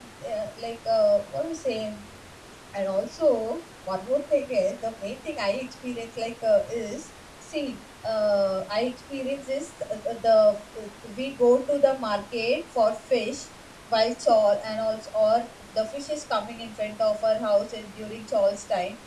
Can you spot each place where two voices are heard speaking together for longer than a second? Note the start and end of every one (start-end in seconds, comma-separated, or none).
none